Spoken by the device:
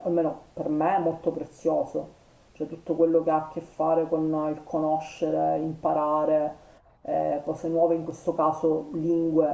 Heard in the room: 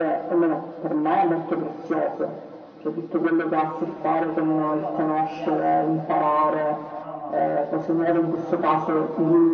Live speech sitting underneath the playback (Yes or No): Yes